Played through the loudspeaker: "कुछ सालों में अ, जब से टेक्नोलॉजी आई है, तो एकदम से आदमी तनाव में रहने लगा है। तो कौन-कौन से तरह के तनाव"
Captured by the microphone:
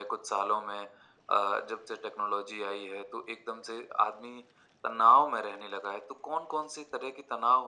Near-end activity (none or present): none